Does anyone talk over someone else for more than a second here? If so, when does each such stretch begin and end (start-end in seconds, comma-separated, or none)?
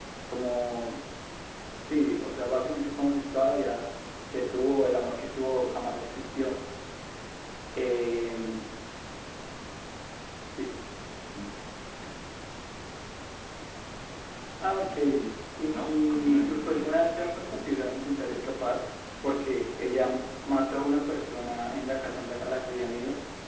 15.8-17.2